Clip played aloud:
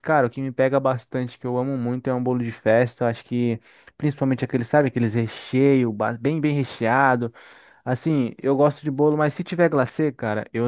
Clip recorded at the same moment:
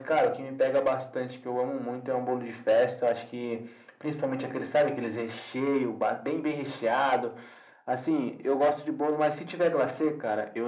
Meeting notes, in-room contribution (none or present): none